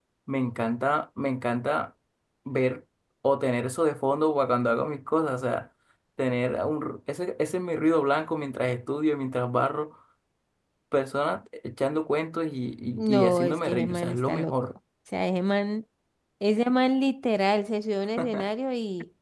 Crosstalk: present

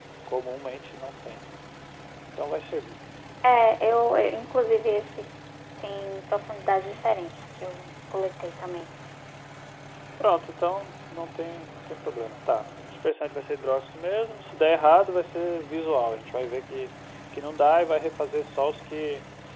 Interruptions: none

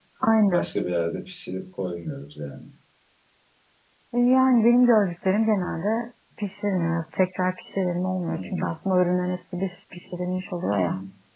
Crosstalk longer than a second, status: none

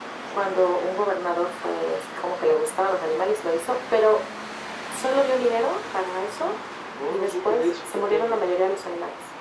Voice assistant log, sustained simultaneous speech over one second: present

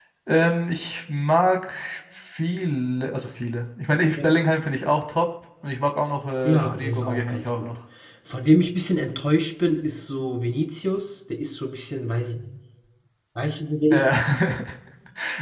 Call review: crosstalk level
present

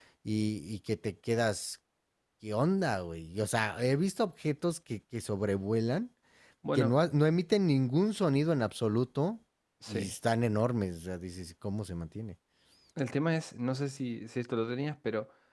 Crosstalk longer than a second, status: none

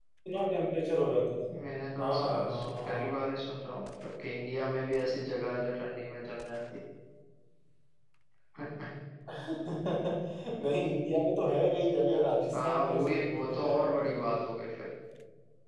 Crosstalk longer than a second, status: present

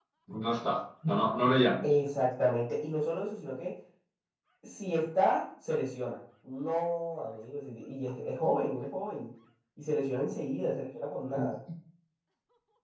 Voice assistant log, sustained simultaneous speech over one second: none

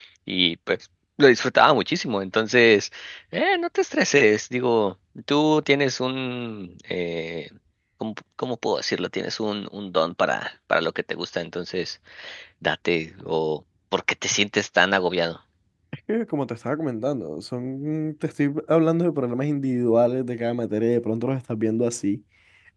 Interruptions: none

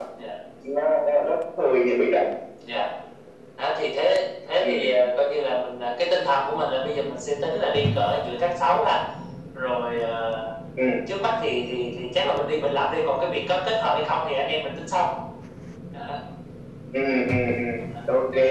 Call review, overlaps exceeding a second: none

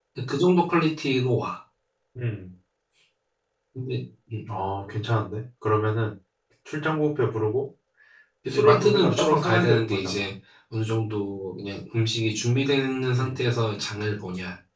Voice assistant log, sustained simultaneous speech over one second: present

